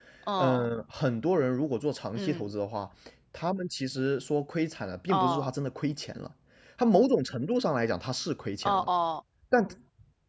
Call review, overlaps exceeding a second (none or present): none